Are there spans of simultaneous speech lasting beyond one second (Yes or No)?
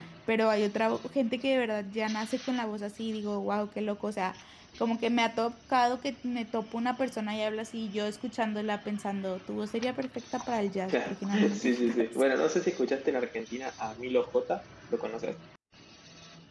Yes